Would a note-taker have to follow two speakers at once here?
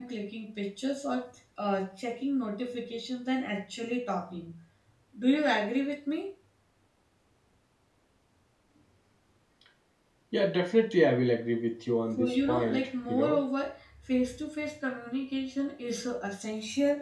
Yes, from 12.2 s

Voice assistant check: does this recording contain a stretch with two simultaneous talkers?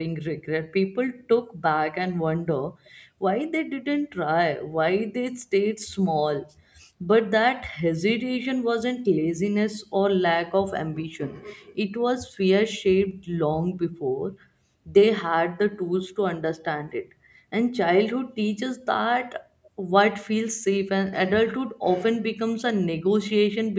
No

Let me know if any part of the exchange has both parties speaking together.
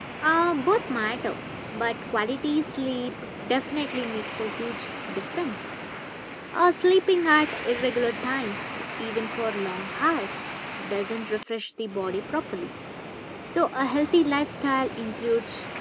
No

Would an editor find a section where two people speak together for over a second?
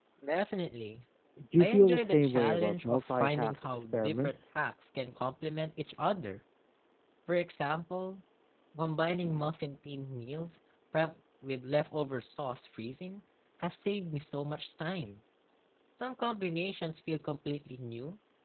Yes, from 1.6 s

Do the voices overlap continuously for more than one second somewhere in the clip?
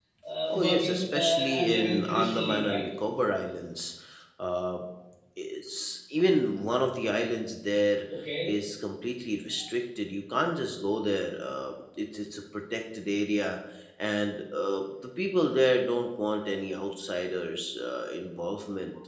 Yes, from 0.5 s

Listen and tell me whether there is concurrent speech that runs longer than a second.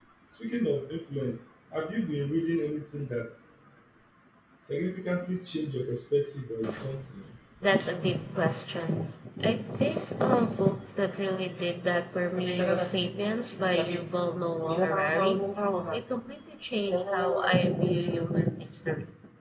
No

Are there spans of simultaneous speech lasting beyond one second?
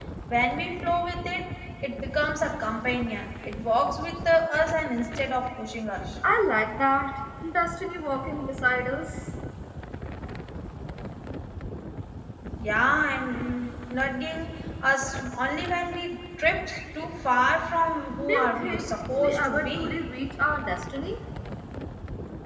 Yes, from 18.2 s

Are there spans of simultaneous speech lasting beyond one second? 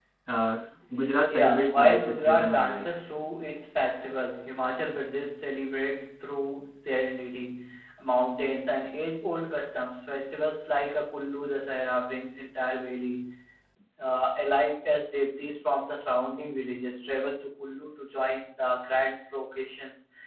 Yes, from 1.3 s

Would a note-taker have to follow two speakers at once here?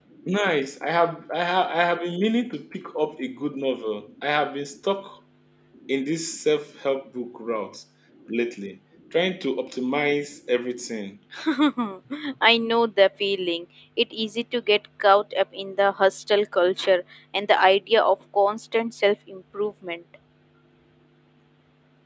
No

